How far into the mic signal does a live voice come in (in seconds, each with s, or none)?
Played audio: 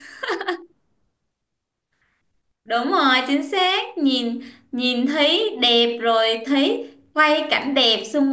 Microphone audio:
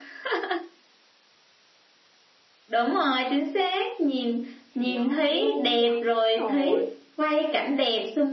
4.7 s